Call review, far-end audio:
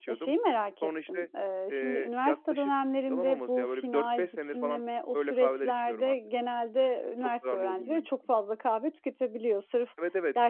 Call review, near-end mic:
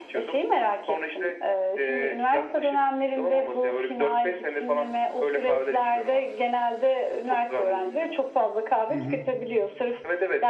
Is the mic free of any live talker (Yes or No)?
No